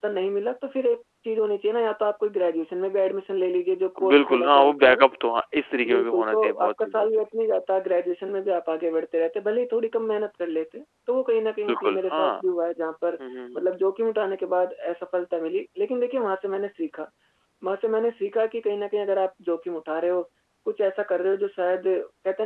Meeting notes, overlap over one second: present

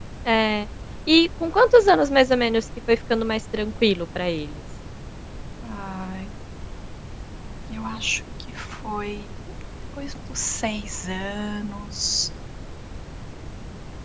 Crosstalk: none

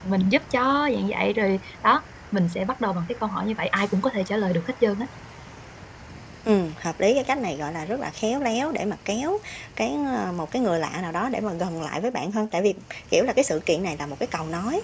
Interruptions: none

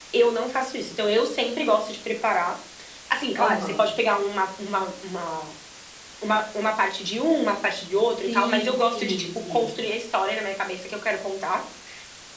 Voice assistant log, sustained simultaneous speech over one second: present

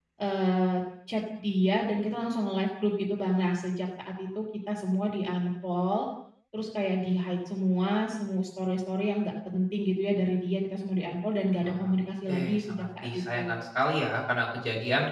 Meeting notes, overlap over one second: present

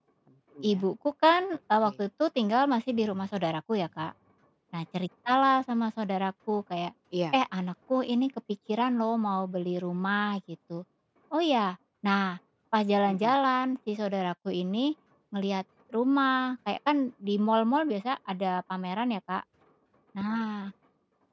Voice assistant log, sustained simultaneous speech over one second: none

